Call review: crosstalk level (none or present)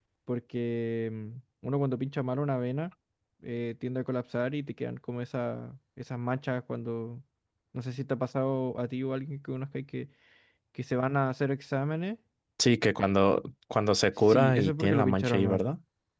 present